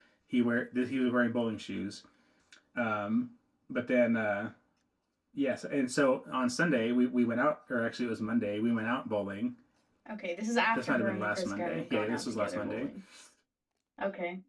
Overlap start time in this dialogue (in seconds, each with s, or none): 10.7 s